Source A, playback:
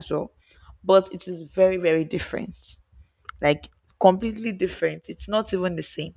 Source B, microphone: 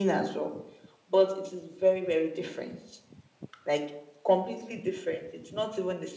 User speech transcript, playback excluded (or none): none